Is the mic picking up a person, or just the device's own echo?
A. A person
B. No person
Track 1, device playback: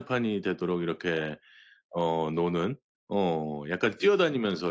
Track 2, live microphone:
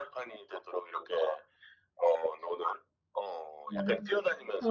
A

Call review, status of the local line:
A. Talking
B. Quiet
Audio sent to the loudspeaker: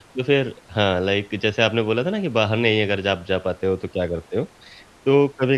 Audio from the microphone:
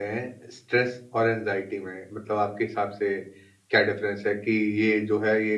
A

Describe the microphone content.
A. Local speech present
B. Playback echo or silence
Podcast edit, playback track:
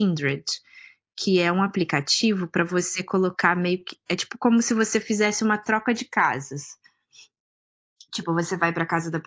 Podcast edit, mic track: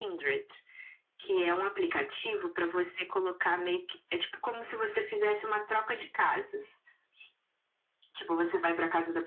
B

